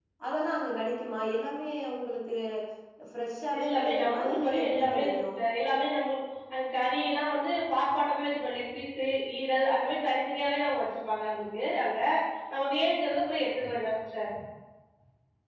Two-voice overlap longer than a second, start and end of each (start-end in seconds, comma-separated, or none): 3.6-5.2